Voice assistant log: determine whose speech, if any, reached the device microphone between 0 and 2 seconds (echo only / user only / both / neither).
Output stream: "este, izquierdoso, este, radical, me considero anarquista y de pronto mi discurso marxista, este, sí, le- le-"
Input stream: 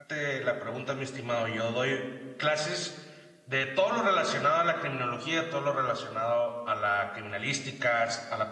user only